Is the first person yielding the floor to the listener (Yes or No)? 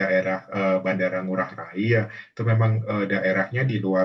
No